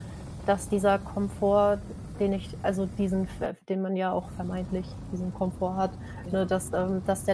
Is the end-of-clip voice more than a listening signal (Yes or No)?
No